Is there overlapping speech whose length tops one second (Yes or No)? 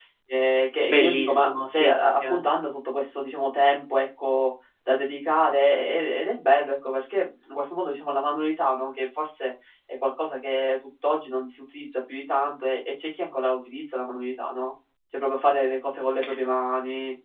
Yes